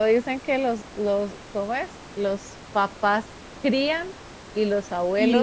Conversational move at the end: taking over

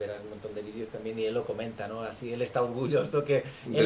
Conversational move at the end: listening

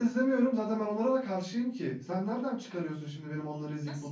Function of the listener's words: taking over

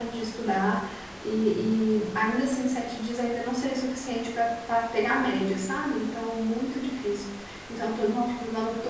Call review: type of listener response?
listening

